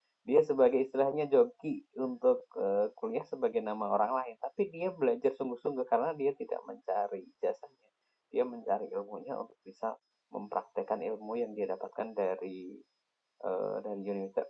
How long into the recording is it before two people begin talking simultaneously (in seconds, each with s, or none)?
none